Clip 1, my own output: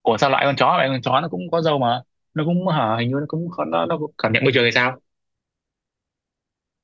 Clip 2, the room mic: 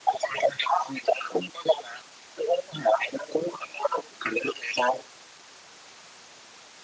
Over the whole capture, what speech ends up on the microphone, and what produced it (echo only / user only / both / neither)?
echo only